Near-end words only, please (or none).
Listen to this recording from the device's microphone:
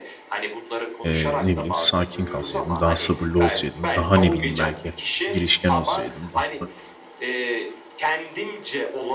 eee, ne bileyim, sakin kalsaydım, daha sabırlı olsaydım, daha, ne bileyim, belki girişken olsaydım, daha